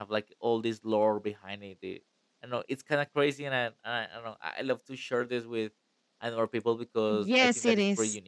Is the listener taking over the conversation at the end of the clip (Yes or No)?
Yes